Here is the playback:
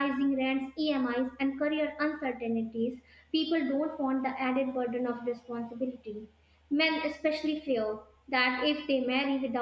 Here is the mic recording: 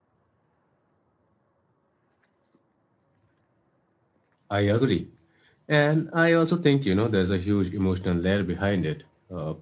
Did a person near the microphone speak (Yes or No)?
Yes